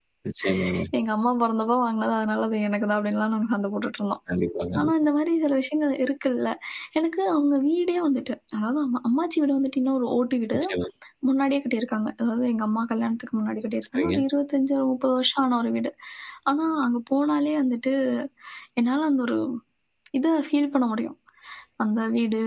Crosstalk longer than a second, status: none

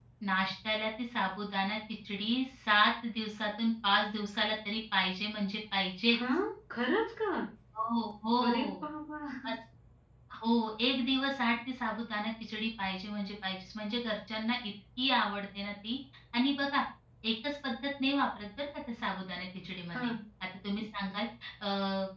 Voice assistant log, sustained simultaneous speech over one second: none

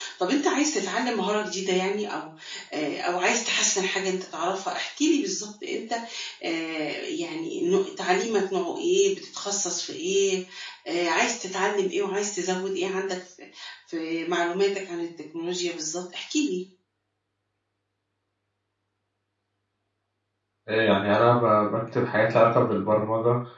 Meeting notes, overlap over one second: none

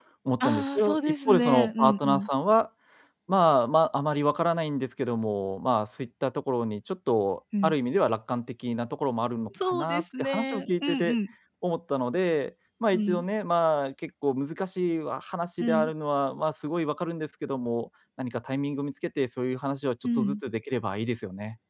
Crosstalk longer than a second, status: present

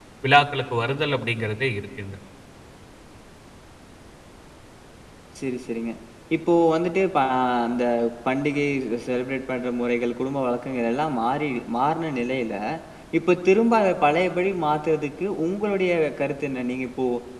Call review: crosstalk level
none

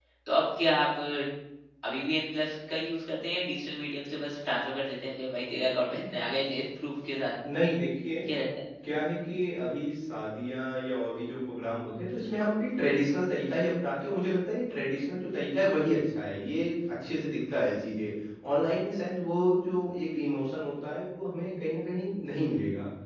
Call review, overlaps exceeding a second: none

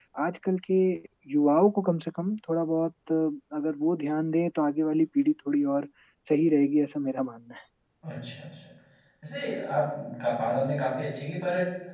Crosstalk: none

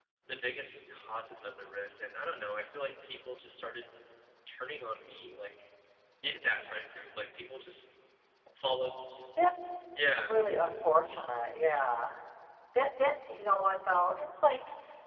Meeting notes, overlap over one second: none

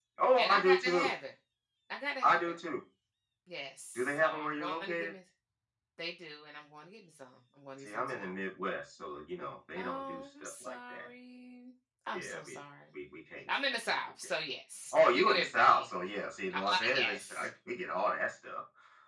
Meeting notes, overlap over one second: present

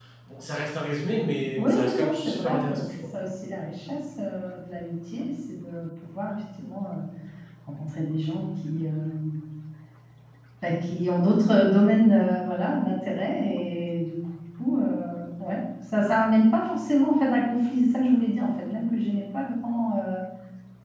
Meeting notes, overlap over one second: present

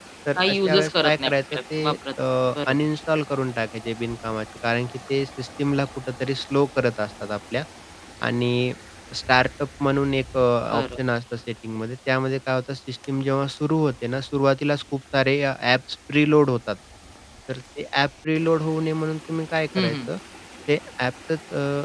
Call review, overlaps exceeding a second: present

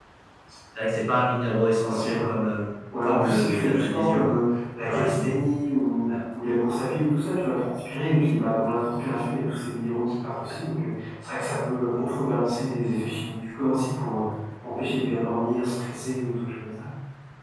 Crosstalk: present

